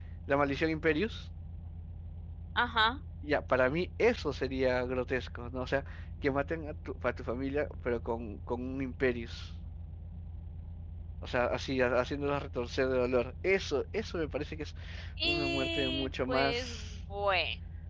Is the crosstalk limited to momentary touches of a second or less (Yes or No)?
No